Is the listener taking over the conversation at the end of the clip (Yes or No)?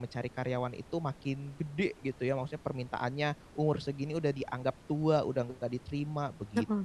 Yes